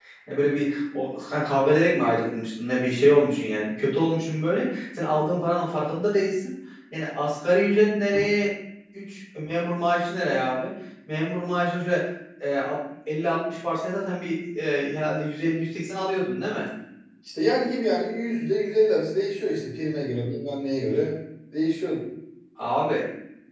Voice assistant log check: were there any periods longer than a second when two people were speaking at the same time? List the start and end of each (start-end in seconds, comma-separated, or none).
none